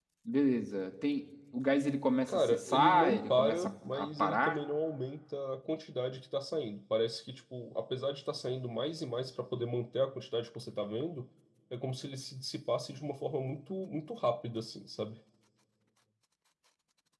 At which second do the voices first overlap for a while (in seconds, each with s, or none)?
2.3 s